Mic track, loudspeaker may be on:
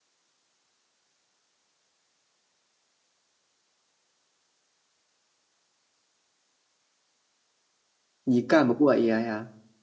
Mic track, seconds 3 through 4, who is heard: neither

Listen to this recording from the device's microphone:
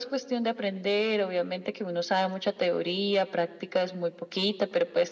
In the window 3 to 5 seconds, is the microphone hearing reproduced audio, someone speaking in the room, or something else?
echo only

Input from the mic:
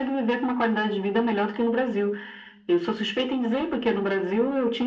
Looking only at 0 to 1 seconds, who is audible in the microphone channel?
echo only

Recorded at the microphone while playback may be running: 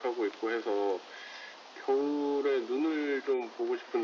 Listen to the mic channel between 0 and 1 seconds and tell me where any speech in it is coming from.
echo only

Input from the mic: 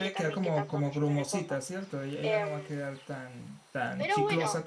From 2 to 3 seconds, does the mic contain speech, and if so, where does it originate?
both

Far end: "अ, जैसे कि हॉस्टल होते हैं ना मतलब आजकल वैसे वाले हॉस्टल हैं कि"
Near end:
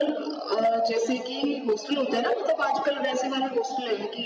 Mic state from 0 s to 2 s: echo only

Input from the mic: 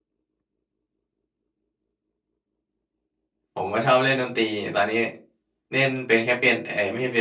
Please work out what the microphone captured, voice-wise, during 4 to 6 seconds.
user only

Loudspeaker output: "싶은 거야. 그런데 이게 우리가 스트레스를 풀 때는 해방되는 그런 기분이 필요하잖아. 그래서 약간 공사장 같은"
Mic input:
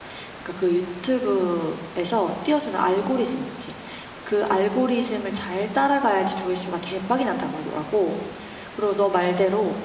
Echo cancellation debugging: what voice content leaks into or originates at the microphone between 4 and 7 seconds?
user only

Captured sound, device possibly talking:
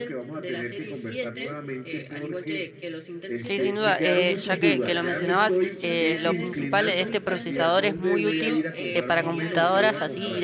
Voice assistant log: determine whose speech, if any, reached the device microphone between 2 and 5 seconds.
both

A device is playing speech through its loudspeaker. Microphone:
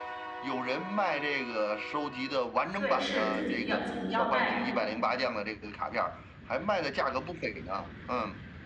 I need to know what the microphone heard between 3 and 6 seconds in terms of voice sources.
both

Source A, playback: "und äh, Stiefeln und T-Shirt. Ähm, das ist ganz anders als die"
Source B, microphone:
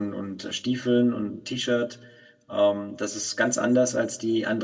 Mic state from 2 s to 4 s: echo only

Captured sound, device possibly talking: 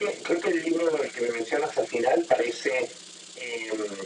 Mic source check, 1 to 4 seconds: echo only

